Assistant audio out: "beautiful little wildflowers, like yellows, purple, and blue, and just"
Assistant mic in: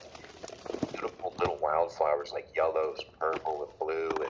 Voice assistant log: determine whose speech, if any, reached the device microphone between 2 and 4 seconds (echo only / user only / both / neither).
echo only